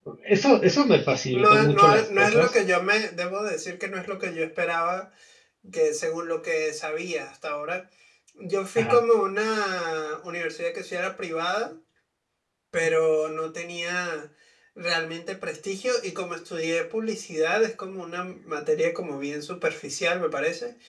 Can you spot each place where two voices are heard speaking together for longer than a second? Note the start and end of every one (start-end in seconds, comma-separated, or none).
1.3-2.5